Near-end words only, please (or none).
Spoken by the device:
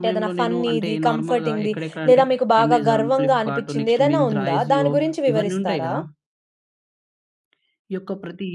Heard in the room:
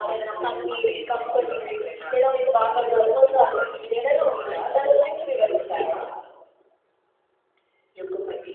none